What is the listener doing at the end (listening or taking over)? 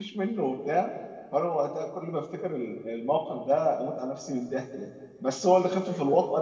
listening